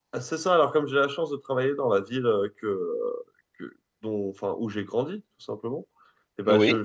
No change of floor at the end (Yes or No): Yes